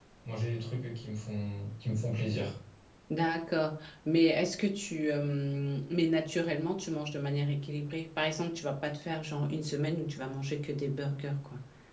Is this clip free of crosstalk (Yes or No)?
Yes